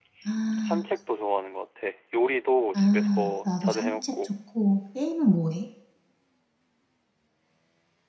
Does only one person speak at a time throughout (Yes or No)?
No